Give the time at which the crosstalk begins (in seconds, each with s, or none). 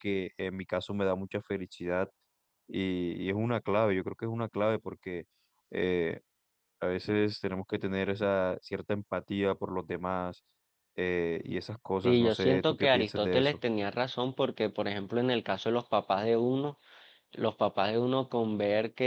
12.0 s